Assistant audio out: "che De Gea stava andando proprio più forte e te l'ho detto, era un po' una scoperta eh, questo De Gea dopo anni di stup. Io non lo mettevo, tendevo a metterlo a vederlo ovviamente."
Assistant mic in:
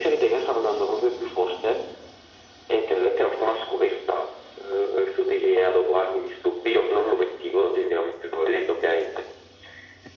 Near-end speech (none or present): none